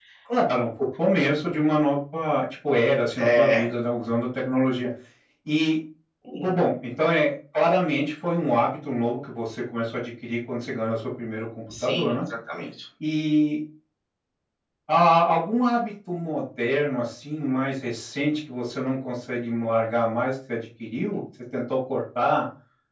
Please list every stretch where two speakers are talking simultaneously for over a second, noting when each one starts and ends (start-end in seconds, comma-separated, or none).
none